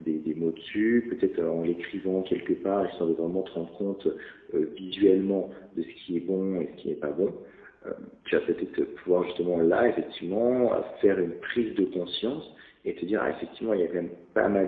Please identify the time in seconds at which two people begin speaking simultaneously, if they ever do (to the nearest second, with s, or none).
none